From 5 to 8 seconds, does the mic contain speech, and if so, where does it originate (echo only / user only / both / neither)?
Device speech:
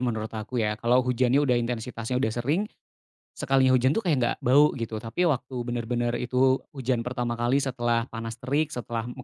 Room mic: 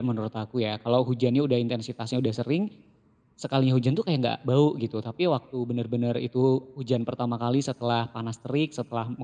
echo only